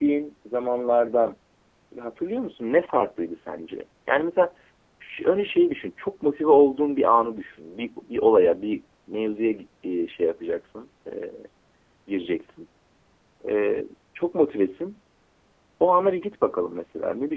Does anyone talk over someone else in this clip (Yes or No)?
No